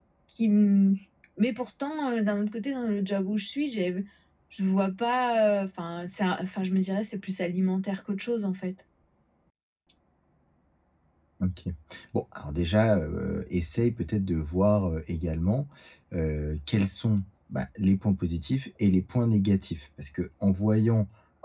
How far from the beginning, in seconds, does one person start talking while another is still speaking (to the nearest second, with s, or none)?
none